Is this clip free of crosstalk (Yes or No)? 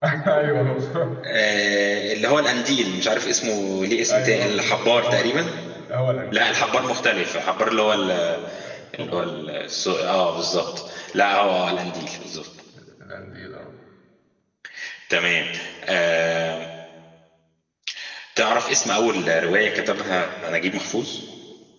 No